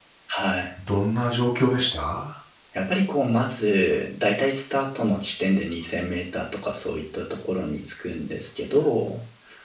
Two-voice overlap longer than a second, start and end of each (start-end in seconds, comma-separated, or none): none